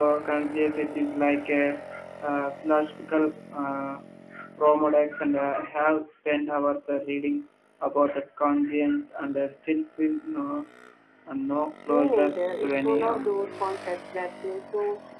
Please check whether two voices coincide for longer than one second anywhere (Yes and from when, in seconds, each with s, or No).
Yes, from 11.9 s